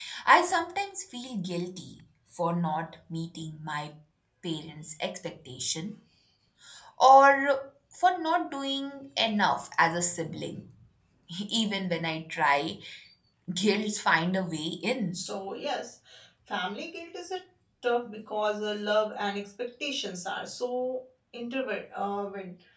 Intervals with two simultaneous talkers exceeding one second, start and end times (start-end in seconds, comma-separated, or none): none